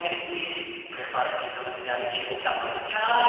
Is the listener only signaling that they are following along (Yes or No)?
No